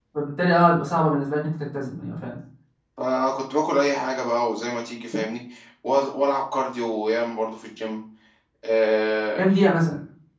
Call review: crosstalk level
none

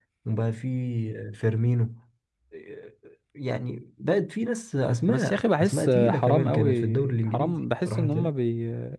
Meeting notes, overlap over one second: present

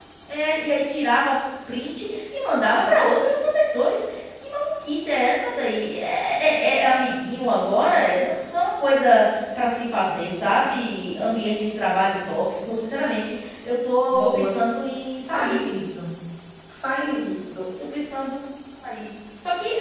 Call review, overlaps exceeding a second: none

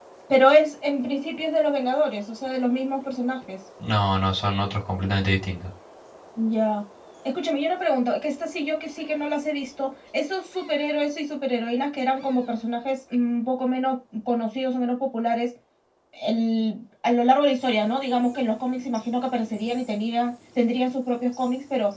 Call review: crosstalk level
none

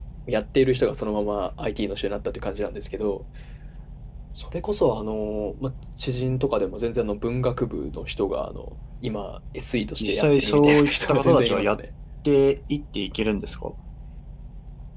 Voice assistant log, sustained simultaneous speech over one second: present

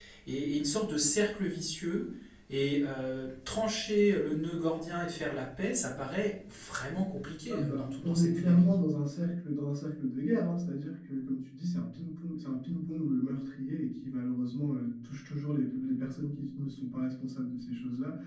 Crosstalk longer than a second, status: present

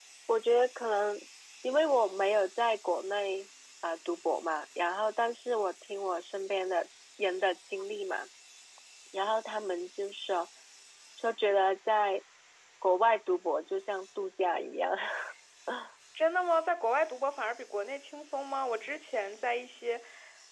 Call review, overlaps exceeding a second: none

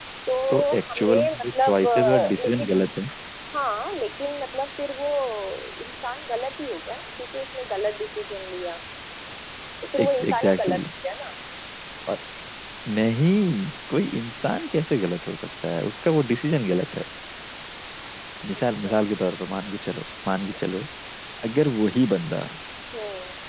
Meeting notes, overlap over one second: present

